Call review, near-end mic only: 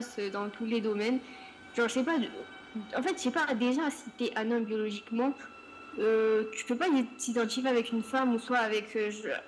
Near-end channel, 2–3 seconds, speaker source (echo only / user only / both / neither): echo only